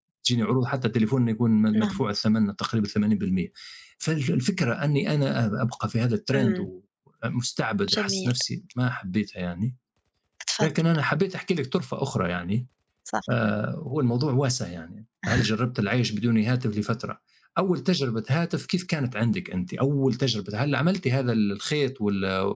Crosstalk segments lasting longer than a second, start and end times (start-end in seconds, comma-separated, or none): none